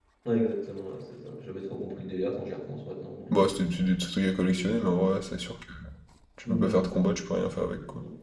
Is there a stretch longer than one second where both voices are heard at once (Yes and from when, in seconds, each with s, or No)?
No